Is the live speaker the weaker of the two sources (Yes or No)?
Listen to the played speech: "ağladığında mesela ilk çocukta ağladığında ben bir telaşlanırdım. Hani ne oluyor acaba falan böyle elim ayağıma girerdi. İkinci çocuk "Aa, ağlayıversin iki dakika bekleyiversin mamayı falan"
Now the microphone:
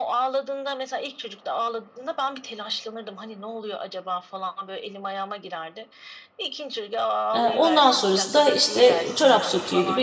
No